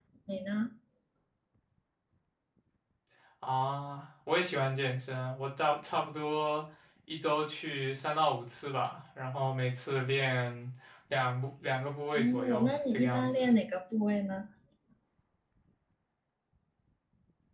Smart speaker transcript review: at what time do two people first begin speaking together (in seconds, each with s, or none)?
12.2 s